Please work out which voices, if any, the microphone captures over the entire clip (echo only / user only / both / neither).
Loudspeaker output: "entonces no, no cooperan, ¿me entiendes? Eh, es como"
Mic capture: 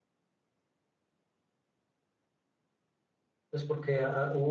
user only